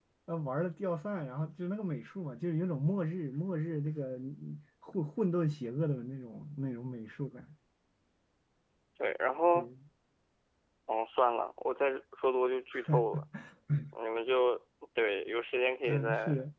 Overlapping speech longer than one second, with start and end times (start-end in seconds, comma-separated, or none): none